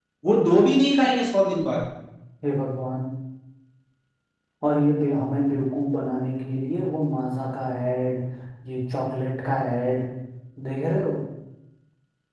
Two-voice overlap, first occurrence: none

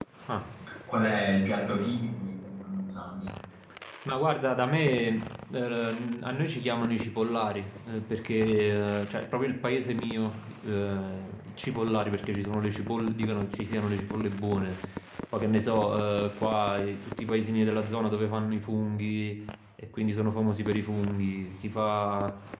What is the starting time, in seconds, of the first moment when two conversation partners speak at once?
none

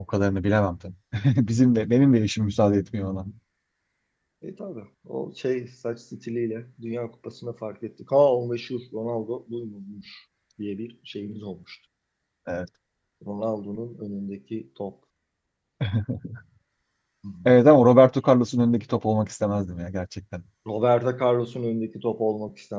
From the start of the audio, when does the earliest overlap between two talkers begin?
none

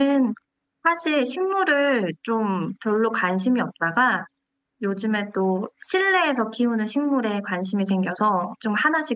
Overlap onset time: none

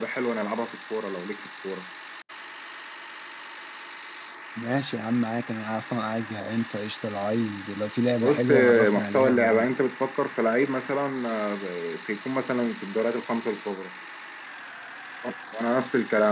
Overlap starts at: 8.2 s

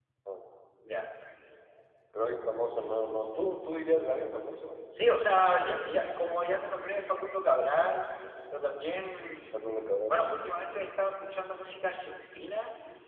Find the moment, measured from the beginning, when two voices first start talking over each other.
none

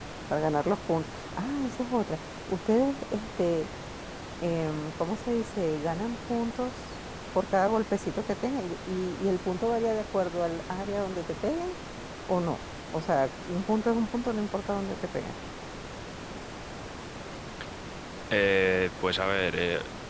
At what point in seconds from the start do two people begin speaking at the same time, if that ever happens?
none

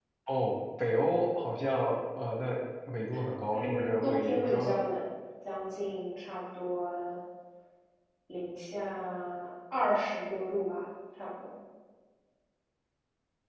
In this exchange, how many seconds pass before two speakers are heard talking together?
3.5 s

